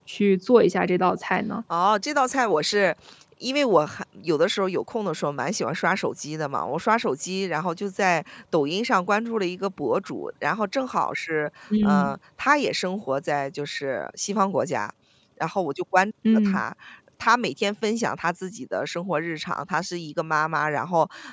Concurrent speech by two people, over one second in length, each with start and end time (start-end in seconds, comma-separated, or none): none